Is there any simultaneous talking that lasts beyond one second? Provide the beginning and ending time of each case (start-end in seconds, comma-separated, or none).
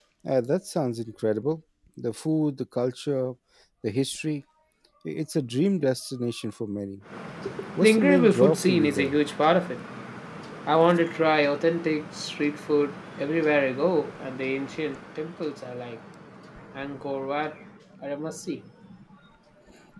7.8-9.2